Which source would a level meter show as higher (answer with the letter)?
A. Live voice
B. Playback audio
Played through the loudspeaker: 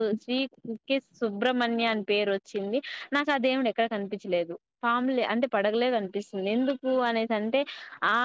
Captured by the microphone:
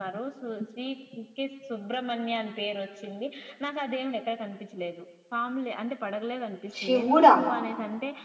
A